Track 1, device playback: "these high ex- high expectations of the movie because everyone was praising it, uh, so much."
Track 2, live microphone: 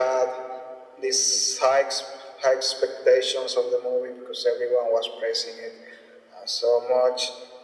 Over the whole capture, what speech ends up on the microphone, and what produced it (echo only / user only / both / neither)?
echo only